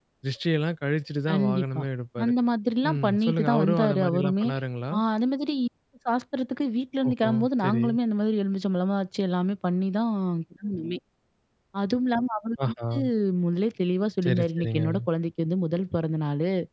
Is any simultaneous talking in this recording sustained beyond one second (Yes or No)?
Yes